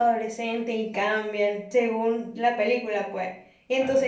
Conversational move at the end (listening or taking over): listening